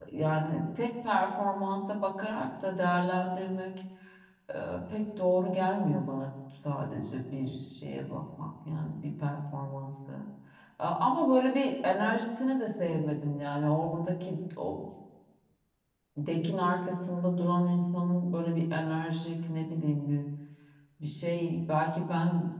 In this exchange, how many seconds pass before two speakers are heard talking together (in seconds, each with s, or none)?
none